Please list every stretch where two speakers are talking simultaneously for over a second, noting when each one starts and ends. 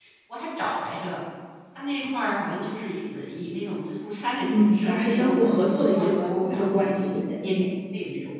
4.5-7.7

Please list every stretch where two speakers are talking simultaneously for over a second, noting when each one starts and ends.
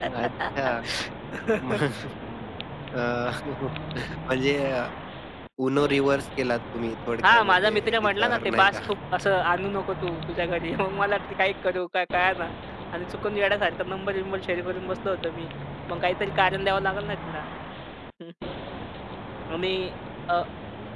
7.3-8.8

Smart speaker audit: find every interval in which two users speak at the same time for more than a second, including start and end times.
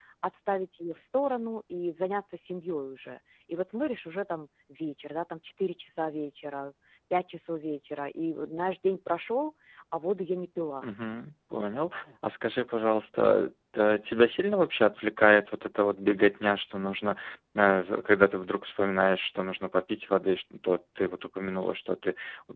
none

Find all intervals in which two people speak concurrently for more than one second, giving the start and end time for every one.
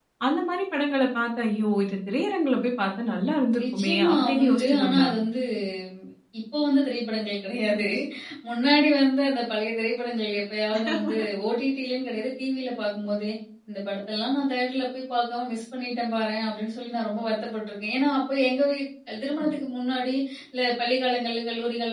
3.6-5.1

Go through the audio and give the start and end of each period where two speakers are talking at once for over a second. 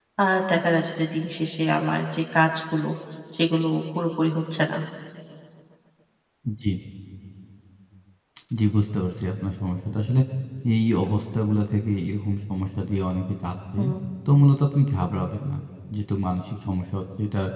none

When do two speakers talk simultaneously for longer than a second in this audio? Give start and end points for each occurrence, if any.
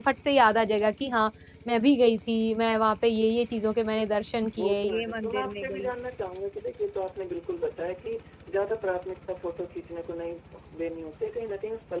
4.6-5.9

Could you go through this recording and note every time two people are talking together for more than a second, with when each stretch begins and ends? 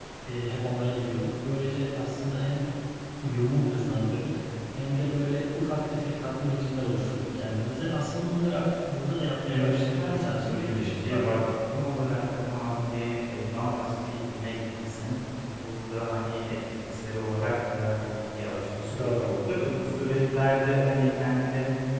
9.5-11.4

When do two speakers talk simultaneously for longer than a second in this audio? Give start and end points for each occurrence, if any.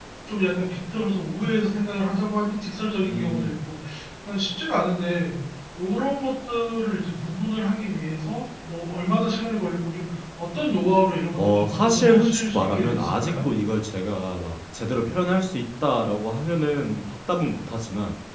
11.4-13.3

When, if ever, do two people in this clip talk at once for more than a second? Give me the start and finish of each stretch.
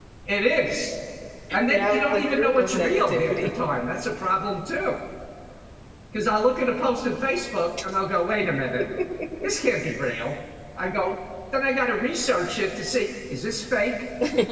1.7-3.5

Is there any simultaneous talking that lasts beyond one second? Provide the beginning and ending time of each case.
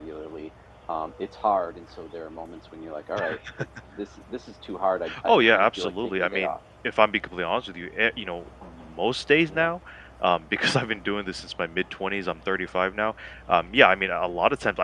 5.2-6.5

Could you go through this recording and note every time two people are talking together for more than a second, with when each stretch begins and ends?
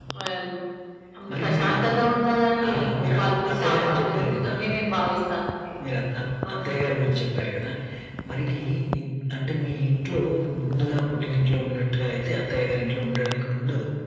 2.7-4.5

